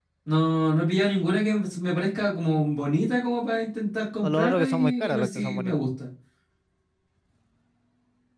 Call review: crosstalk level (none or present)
present